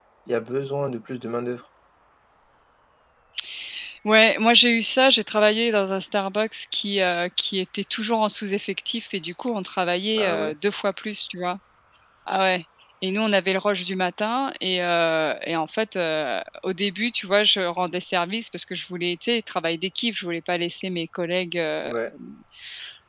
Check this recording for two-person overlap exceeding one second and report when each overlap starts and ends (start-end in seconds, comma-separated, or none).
none